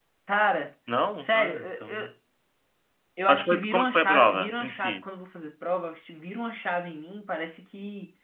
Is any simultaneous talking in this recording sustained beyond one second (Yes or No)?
Yes